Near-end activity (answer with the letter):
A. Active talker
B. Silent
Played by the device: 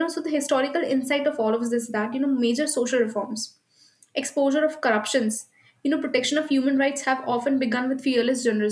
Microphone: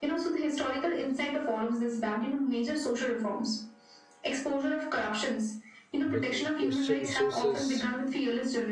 A